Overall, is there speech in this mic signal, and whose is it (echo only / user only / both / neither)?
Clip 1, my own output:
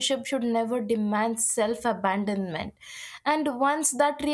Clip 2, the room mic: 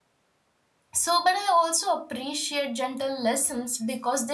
user only